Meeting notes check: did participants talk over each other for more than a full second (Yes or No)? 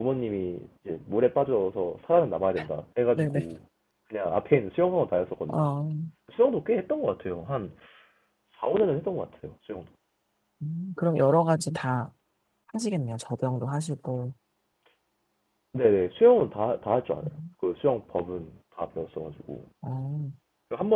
No